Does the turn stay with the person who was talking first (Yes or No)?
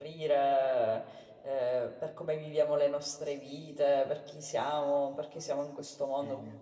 Yes